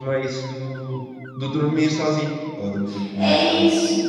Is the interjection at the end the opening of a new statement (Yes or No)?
Yes